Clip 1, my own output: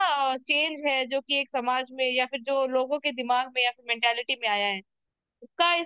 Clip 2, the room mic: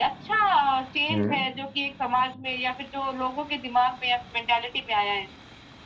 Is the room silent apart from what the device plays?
No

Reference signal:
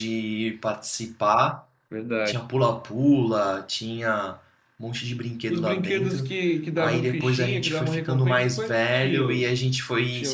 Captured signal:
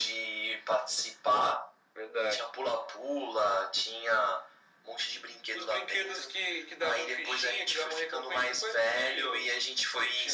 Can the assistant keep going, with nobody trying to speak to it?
Yes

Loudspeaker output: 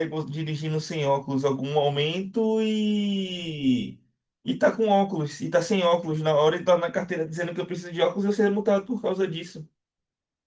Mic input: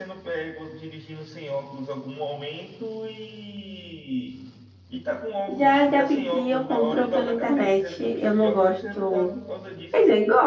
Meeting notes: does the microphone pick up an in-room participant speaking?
Yes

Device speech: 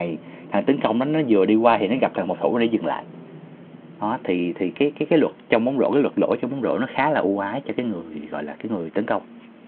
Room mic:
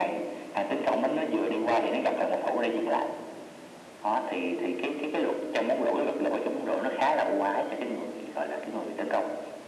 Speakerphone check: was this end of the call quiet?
Yes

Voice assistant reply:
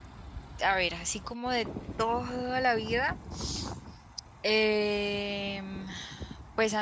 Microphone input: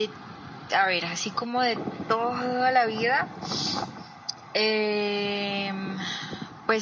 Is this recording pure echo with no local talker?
Yes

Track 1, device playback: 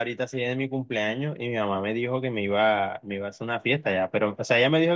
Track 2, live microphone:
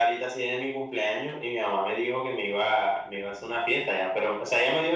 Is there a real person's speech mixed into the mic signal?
No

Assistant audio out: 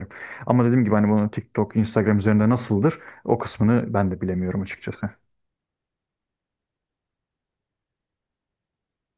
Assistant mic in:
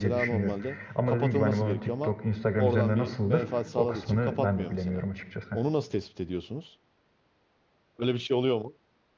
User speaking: Yes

